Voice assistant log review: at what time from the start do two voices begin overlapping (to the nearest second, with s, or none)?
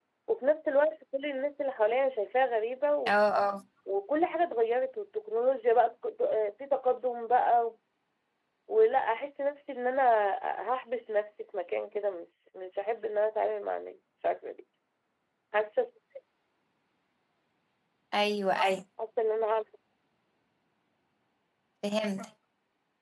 none